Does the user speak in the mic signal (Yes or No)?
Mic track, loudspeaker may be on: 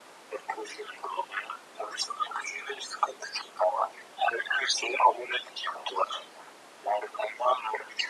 No